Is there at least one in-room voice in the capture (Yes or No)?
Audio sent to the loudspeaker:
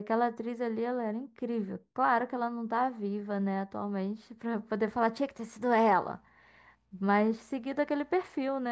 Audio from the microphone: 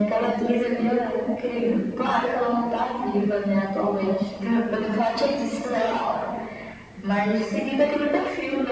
No